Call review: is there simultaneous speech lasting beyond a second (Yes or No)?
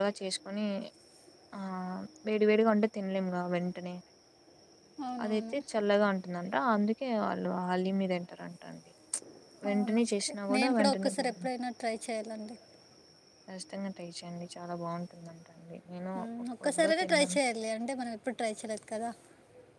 Yes